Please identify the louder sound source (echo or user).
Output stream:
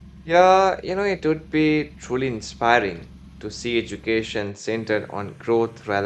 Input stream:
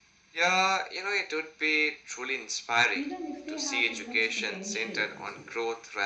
echo